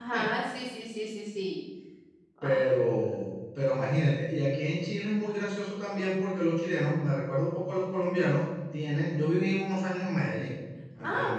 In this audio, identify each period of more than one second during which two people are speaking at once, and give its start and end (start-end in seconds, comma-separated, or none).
none